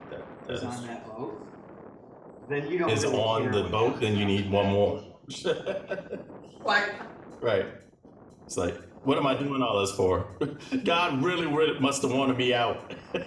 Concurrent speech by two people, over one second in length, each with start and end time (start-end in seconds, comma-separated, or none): 2.9-4.7